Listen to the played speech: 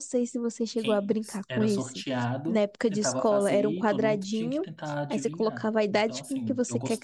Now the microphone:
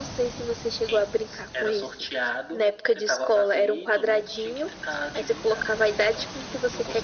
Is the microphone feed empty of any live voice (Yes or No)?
Yes